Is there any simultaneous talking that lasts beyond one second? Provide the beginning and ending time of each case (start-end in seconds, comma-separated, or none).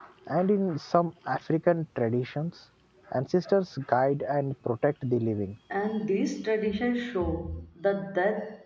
none